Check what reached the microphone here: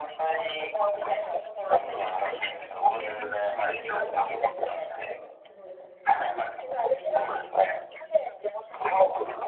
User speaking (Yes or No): Yes